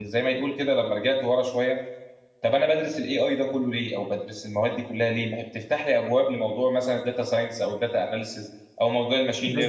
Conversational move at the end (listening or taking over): listening